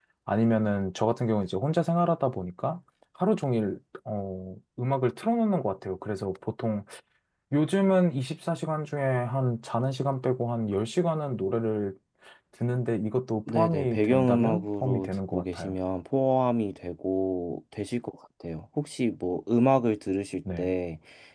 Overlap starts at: 13.5 s

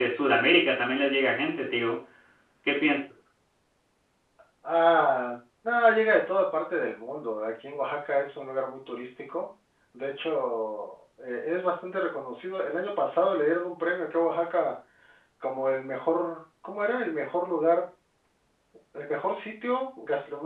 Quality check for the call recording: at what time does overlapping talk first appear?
none

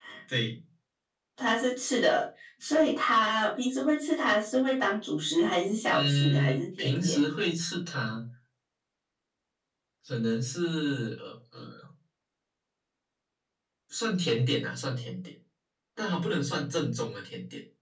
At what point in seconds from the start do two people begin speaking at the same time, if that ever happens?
5.9 s

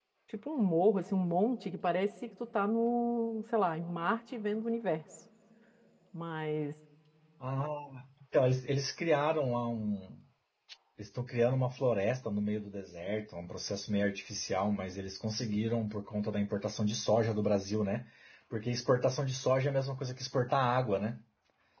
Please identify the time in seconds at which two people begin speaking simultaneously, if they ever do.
none

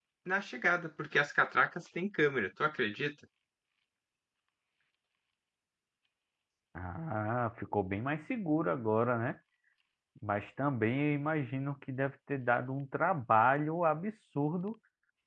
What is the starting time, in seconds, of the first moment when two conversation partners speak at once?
none

